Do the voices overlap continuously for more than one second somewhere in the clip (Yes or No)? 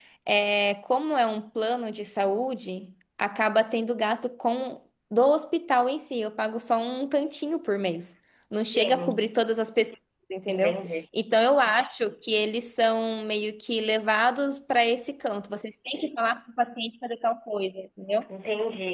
No